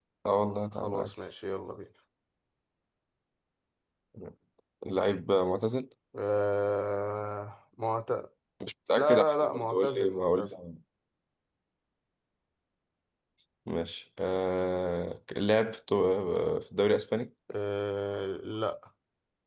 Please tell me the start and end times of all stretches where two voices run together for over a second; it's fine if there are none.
9.0-10.6

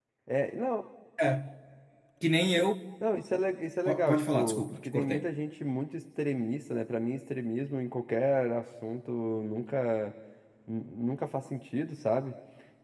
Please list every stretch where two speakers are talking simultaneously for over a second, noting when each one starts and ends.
3.9-5.3

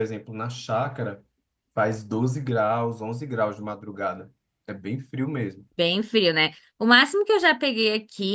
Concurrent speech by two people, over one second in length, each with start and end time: none

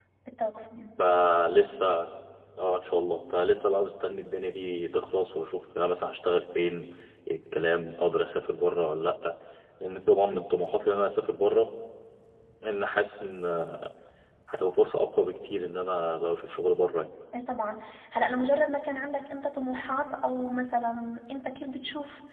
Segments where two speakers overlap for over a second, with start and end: none

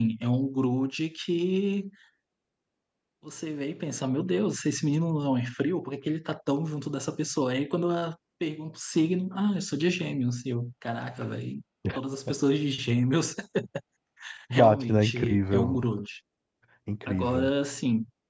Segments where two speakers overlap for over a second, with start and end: 14.5-15.8

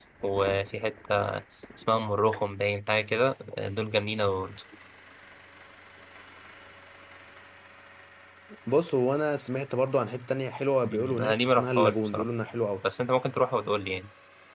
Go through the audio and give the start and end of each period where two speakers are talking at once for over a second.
10.8-12.2

